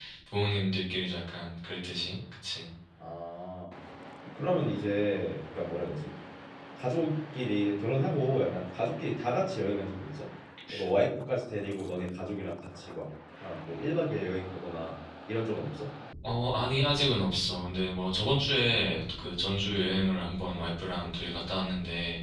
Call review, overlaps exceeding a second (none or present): none